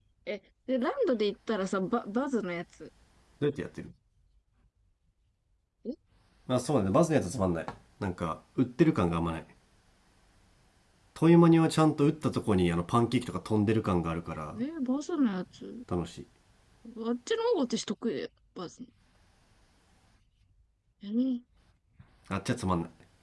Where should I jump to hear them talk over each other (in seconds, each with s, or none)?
none